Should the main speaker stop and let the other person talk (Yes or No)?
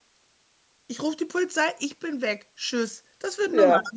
No